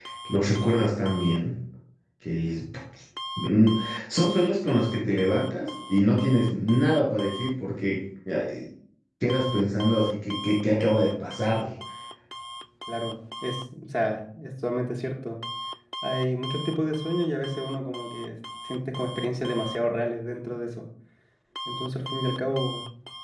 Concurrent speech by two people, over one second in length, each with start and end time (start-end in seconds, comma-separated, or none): none